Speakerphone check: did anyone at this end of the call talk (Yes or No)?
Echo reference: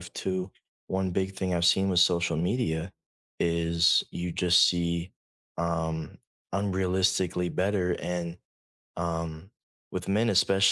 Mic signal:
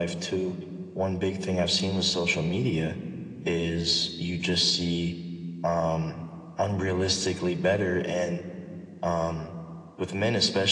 No